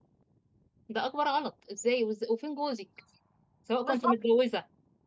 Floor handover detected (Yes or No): No